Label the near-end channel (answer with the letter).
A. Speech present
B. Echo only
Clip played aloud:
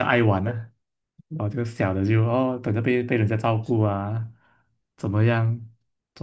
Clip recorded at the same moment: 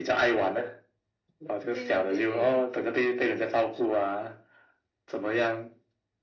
A